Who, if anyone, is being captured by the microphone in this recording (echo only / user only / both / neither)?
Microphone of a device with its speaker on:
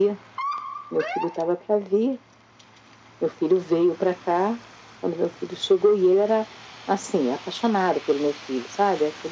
echo only